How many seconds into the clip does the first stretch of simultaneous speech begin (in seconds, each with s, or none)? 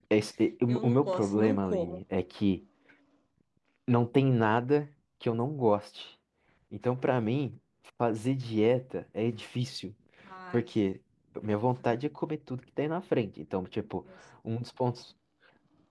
0.7 s